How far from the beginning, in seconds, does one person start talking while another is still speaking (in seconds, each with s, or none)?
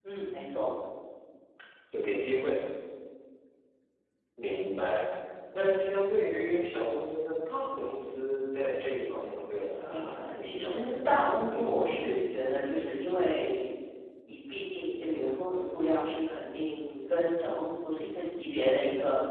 9.8 s